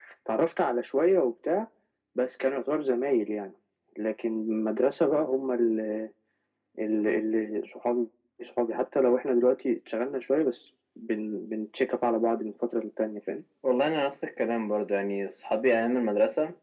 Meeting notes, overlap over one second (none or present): none